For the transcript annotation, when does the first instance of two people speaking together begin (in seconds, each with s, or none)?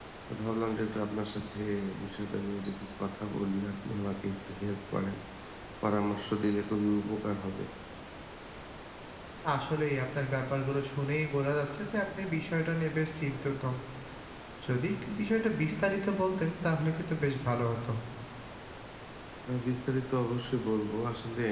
none